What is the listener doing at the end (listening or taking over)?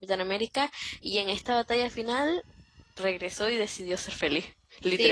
taking over